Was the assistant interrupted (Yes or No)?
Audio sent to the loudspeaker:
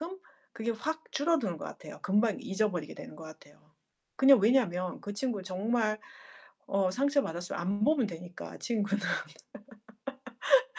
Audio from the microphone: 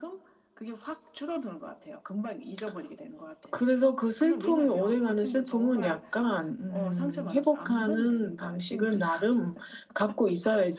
Yes